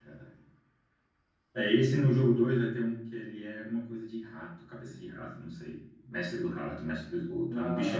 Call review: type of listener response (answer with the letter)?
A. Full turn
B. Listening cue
B